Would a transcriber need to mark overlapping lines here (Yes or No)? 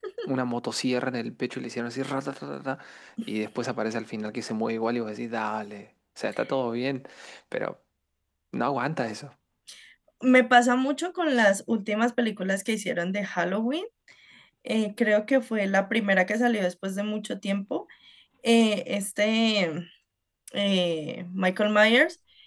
No